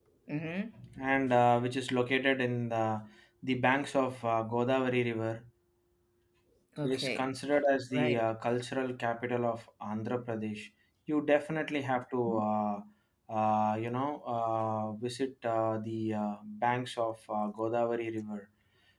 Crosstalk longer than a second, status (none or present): none